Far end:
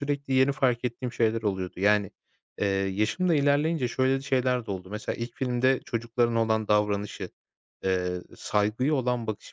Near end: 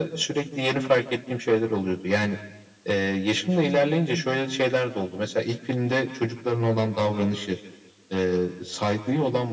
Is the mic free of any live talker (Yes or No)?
Yes